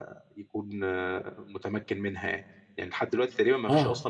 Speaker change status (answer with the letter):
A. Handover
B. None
B